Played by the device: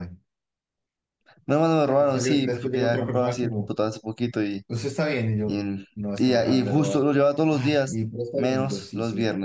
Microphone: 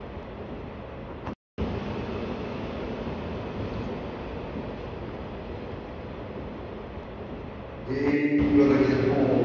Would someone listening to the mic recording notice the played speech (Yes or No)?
No